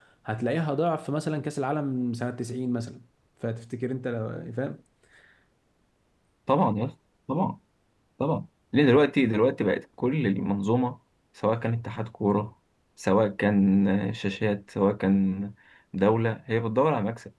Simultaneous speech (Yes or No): No